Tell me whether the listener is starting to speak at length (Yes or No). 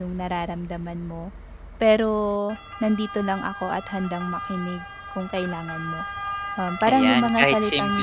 Yes